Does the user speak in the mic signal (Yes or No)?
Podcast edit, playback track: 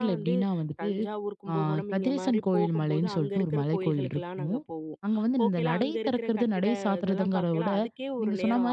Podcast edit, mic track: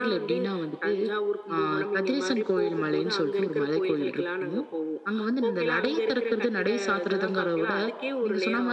No